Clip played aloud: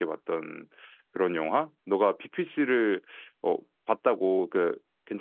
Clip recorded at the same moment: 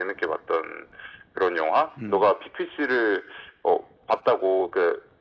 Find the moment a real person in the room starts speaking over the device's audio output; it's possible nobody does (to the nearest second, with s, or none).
2 s